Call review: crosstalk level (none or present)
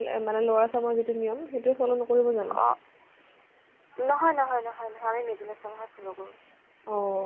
none